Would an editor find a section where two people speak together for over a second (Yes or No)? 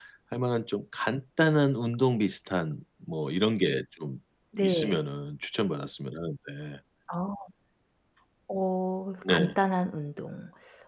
No